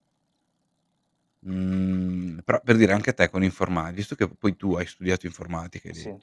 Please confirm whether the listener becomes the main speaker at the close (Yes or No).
No